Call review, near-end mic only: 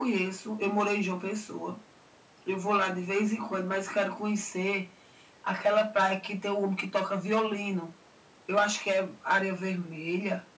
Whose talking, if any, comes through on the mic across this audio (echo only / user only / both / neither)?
echo only